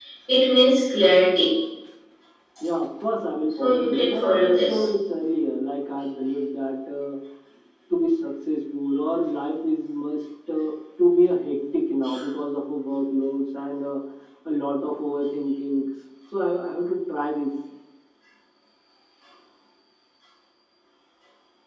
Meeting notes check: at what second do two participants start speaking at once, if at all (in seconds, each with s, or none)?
3.6 s